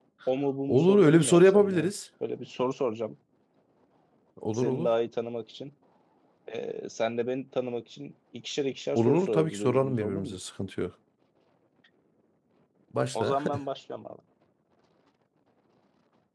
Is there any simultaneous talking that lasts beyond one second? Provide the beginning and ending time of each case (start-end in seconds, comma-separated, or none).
0.7-1.9, 9.0-10.4